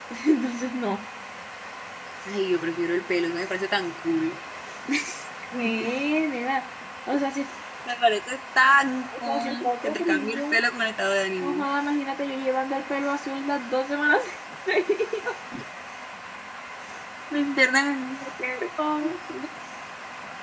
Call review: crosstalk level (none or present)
present